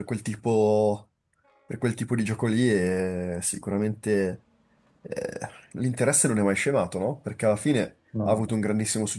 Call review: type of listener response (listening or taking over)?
listening